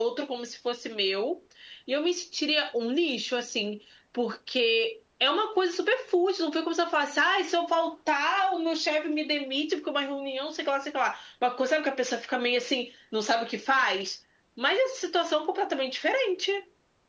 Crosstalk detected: No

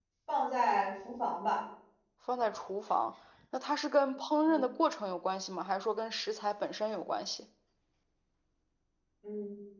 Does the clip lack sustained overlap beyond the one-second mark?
Yes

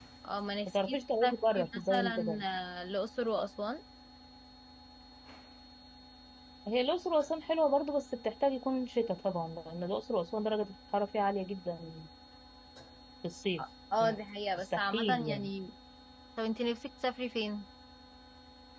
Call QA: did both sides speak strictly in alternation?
No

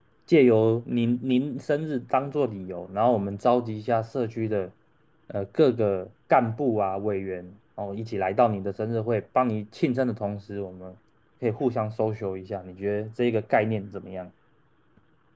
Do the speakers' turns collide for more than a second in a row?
No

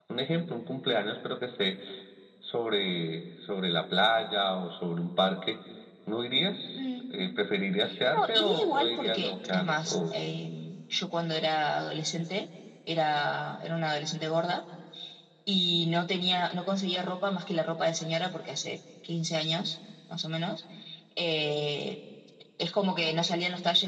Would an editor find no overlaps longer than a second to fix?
No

